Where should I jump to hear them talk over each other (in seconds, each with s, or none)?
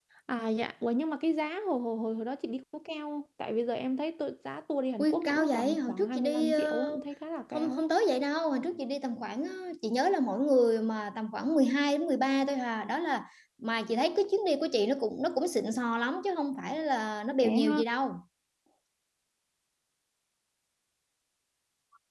5.0 s